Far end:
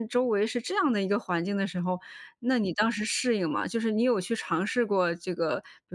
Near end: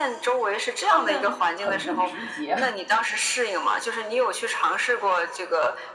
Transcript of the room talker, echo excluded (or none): 他们很不直接，